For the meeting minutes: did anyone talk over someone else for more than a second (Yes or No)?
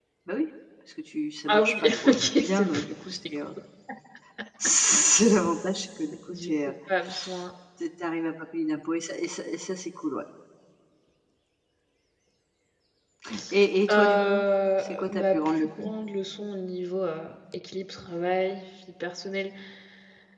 Yes